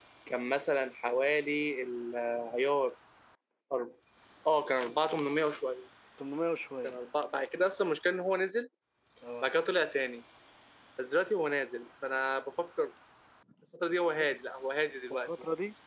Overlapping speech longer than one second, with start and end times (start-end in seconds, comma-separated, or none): none